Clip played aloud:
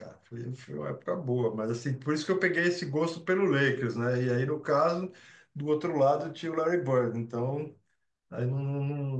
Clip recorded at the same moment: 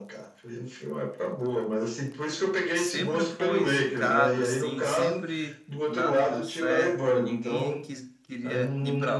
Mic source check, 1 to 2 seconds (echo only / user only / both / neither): echo only